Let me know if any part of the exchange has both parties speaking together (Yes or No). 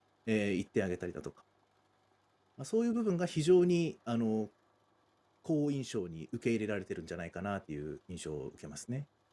No